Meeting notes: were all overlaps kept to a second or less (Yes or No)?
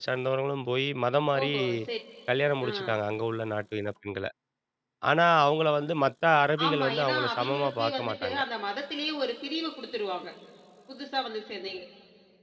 No